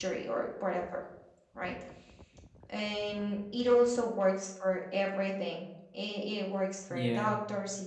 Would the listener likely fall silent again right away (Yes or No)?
Yes